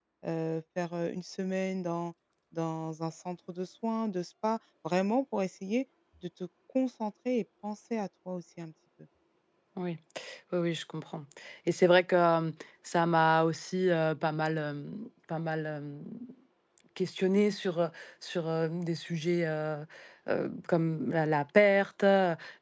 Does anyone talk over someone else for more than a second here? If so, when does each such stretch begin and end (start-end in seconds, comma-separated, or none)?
none